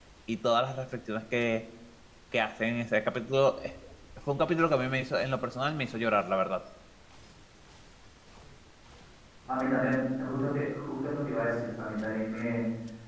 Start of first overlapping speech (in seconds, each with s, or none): none